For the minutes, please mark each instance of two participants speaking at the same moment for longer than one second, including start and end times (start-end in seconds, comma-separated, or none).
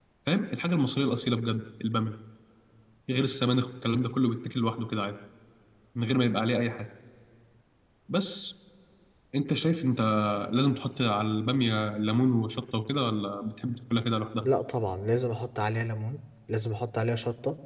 none